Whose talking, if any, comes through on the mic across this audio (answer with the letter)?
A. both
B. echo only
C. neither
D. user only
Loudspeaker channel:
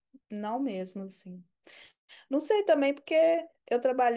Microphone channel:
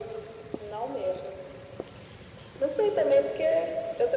B